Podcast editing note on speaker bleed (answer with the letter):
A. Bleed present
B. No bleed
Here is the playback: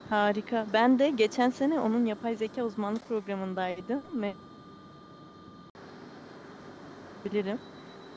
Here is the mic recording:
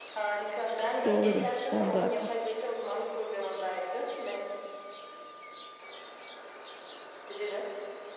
A